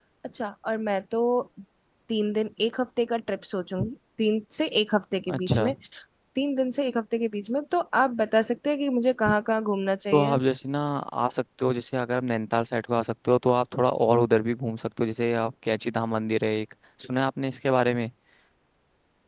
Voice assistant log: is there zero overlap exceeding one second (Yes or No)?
Yes